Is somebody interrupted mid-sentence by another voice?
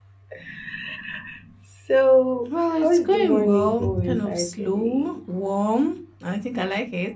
Yes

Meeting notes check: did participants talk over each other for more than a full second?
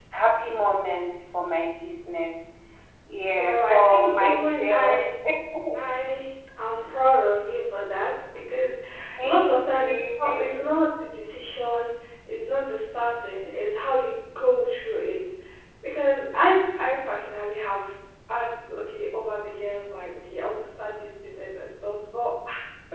Yes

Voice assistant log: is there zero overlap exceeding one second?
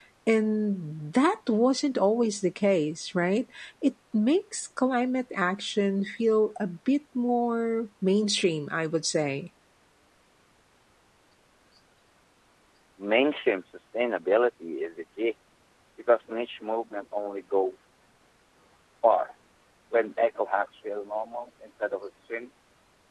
Yes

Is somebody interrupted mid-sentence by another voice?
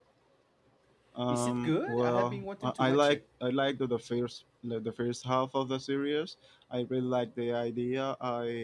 Yes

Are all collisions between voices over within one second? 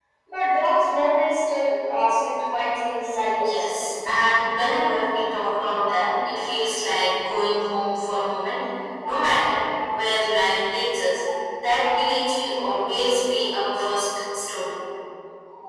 Yes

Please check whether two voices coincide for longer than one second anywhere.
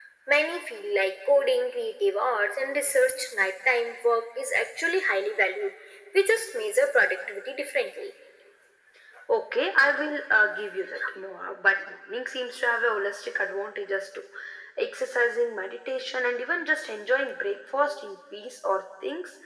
No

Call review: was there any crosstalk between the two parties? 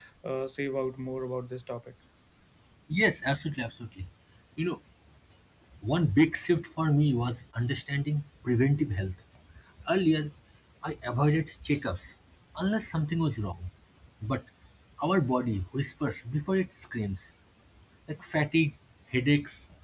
No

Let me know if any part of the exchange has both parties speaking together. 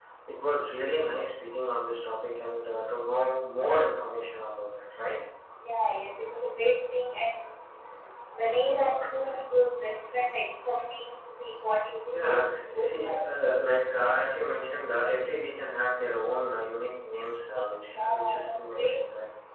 Yes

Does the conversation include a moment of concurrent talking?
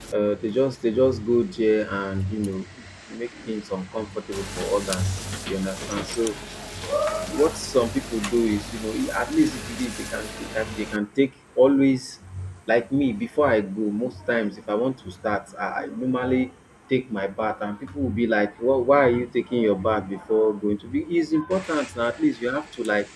No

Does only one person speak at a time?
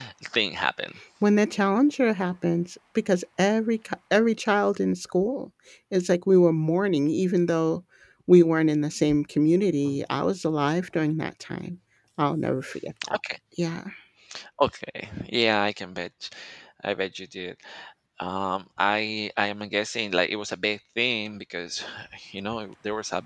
Yes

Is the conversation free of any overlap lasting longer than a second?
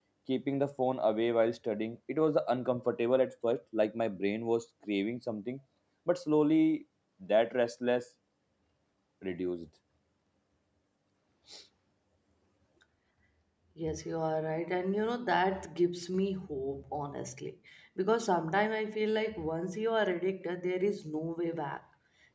Yes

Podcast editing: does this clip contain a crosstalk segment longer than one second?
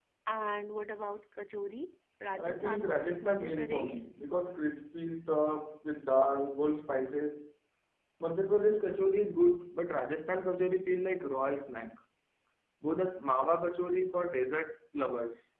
Yes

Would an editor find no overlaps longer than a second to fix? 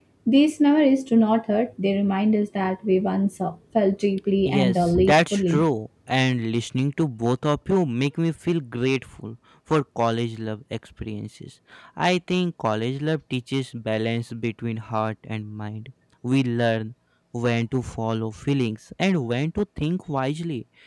No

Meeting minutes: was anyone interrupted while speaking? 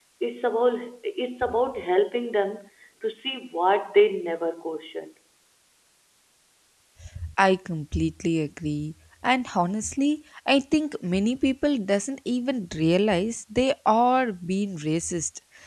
No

